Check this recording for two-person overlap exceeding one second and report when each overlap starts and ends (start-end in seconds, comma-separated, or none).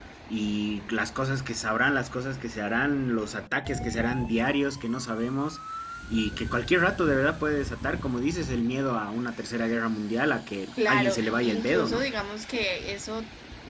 10.8-12.1